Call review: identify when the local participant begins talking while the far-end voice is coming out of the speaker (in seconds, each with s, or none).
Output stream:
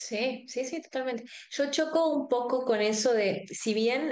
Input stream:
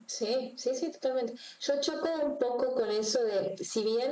none